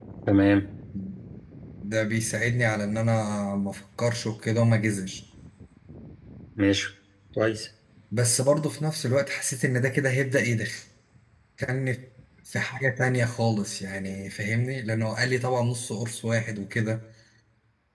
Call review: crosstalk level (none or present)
none